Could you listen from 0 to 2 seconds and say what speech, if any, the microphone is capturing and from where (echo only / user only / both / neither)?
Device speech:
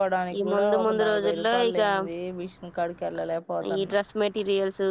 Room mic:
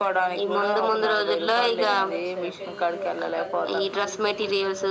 both